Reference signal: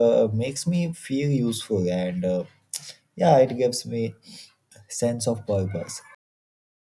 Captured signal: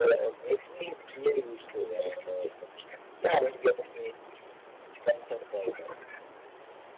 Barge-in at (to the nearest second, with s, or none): none